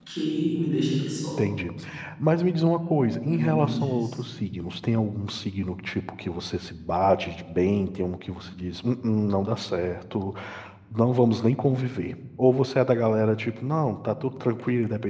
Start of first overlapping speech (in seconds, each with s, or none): 2.8 s